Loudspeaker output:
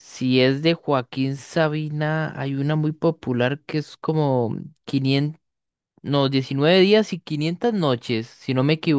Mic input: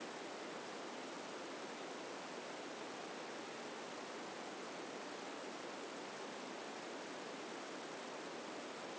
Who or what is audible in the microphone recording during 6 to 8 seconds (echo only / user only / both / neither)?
neither